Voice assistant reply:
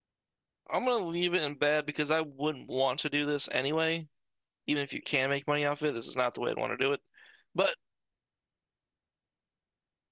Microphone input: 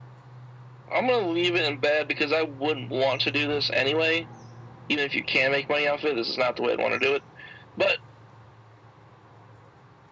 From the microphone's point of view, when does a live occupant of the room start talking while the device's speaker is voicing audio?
none

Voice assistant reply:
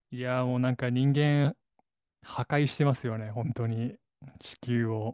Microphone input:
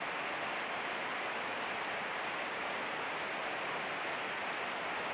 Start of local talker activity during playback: none

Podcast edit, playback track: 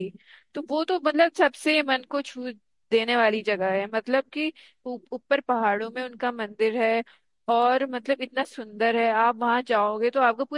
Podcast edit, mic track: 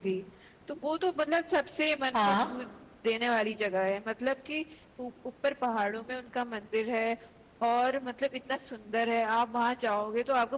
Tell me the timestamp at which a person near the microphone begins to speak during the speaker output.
2.1 s

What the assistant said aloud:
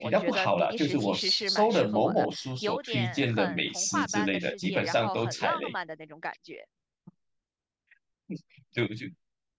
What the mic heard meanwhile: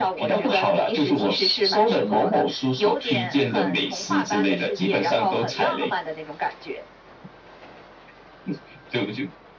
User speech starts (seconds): none

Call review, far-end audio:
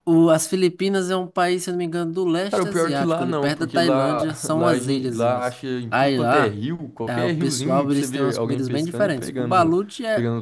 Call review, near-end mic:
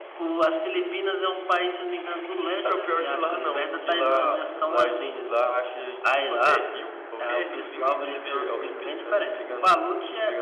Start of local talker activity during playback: none

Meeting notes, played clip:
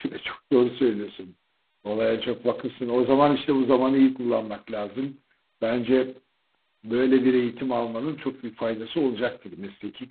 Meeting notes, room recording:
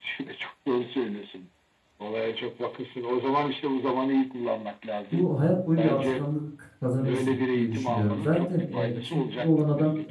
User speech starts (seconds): 5.1 s

